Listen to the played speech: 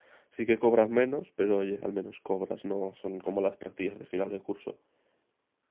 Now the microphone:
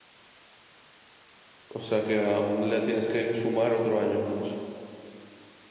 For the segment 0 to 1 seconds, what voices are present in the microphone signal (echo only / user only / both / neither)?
neither